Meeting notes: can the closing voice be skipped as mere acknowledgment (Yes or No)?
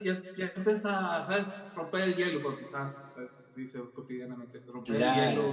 Yes